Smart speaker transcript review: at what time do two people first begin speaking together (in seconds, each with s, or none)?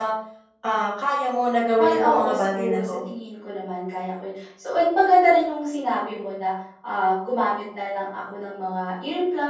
1.8 s